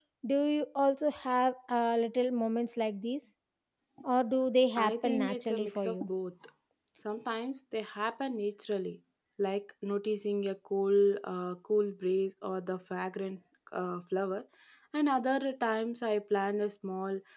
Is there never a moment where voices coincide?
No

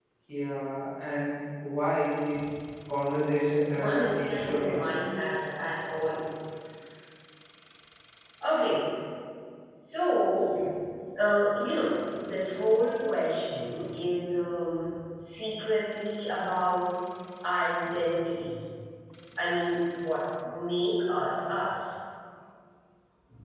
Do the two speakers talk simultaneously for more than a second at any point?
Yes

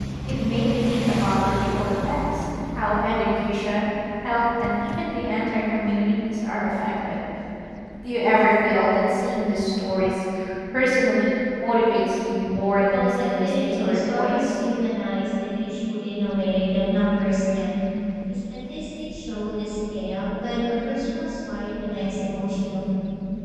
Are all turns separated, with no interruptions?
No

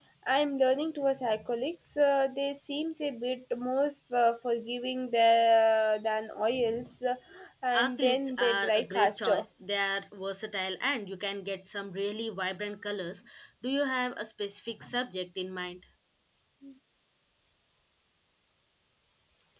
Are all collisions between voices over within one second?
No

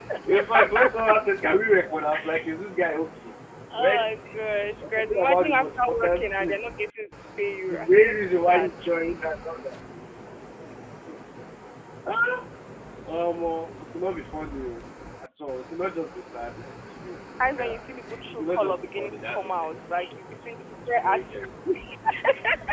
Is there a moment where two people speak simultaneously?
Yes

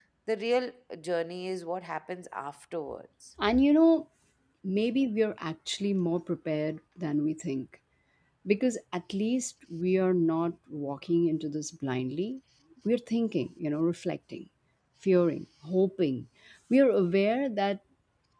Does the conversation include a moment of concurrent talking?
No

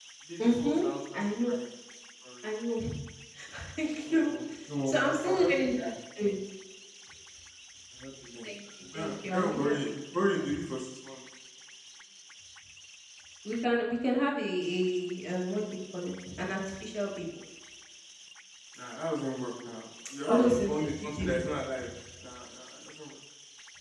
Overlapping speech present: Yes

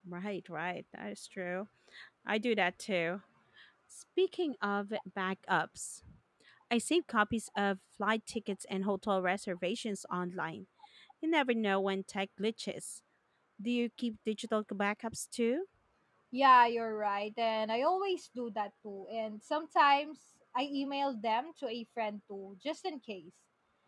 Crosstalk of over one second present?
No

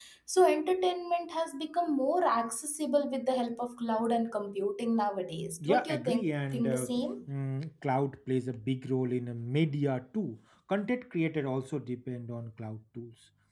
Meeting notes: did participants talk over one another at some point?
Yes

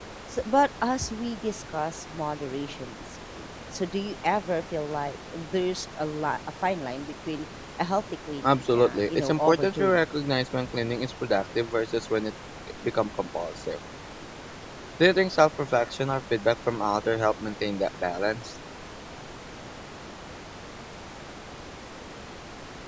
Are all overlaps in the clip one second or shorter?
No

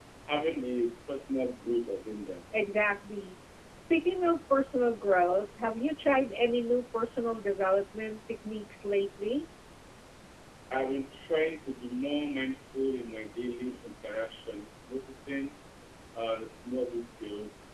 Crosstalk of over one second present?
No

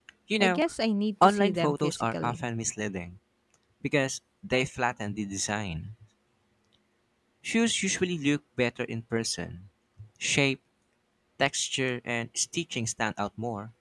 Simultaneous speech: Yes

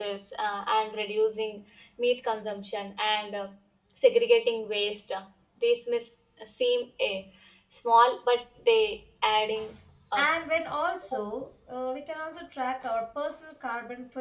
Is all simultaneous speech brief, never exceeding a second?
Yes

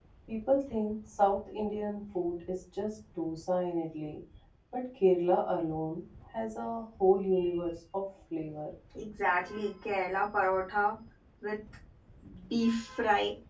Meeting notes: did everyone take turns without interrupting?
Yes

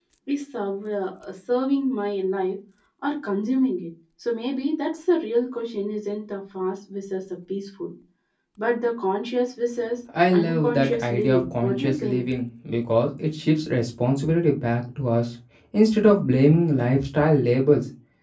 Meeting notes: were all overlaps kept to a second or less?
No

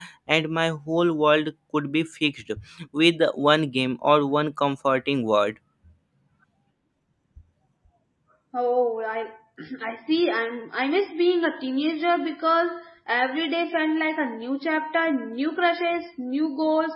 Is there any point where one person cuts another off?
No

